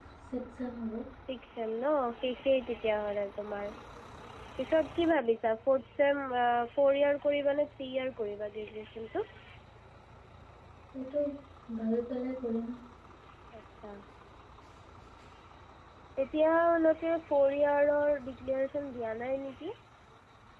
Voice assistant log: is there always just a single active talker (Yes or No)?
Yes